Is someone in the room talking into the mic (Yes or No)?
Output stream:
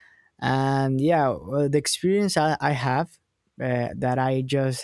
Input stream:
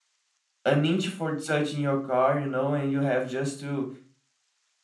Yes